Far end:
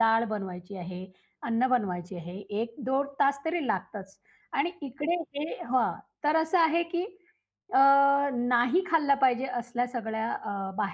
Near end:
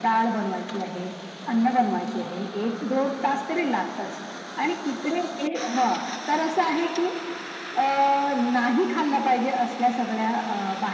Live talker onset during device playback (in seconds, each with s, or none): none